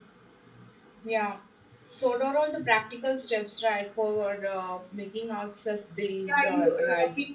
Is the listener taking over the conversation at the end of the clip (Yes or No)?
Yes